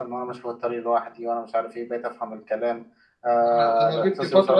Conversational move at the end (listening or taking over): taking over